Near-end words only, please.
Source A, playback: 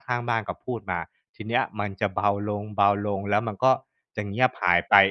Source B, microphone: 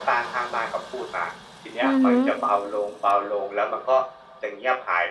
อือฮึ

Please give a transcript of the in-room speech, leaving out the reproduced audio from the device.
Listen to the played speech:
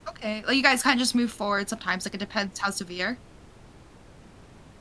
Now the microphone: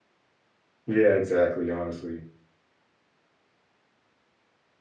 yeah, exactly, honestly.

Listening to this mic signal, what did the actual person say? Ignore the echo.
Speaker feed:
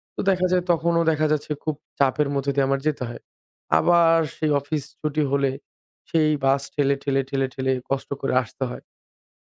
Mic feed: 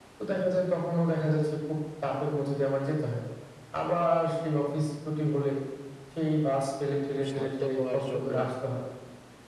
শান্ত হওয়ার জন্য

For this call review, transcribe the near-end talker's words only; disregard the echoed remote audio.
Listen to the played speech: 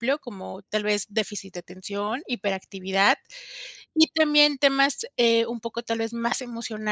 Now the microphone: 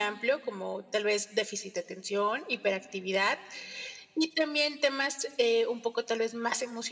none

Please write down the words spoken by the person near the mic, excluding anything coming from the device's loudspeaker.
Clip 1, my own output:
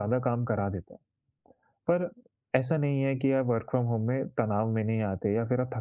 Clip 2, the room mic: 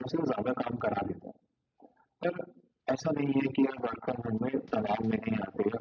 none

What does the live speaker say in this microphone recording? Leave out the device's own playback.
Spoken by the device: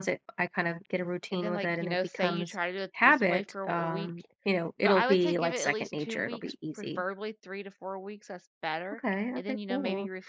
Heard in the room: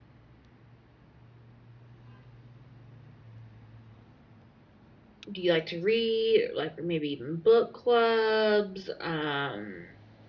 do you like to read? Like, or maybe even book clubs? Um,

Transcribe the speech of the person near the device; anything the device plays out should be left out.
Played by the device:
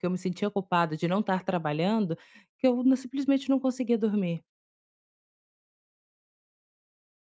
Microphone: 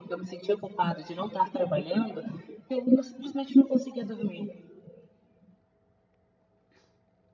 none

